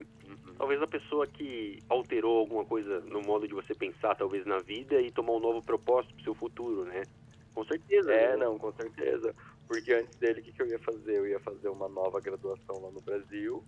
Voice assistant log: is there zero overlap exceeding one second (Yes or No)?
Yes